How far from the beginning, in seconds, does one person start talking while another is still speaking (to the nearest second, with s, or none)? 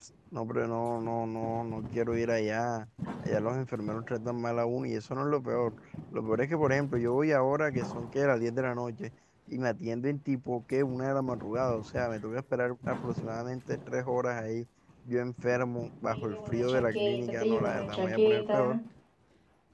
16 s